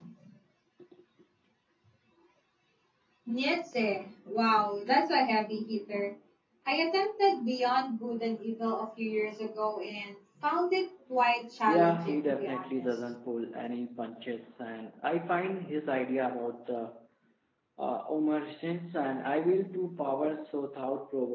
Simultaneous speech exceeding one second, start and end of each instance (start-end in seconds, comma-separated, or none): 11.7-13.0